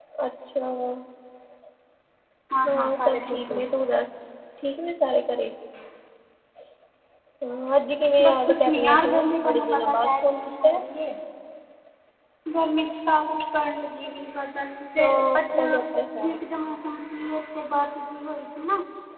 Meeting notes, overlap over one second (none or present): present